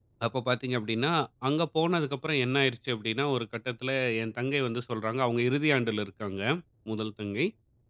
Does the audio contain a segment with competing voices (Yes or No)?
No